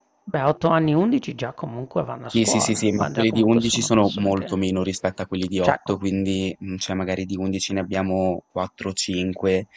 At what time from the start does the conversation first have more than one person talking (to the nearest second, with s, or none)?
2 s